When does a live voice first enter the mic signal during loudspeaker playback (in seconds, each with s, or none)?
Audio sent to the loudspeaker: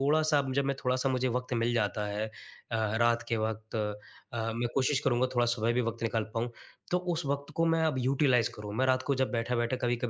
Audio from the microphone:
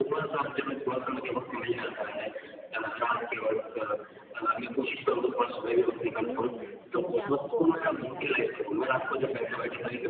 6.2 s